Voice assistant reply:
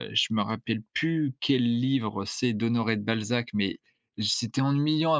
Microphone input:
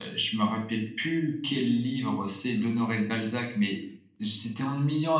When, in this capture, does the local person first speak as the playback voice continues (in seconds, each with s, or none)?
none